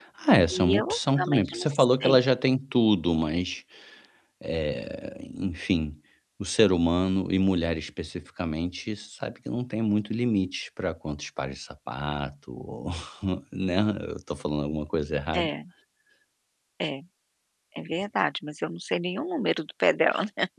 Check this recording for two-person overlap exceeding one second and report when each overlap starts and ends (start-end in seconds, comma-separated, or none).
0.5-2.1